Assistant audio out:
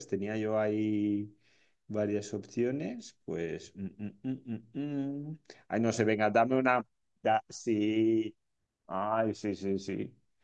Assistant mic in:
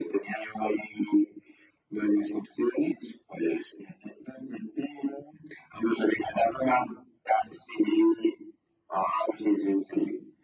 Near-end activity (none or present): none